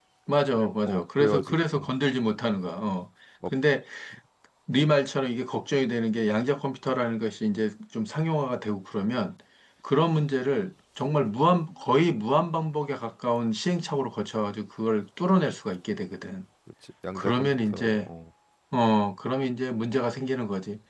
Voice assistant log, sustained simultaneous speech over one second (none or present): present